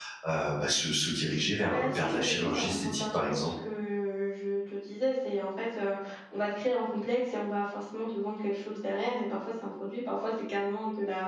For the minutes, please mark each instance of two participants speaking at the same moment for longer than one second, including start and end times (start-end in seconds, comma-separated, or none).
1.6-3.5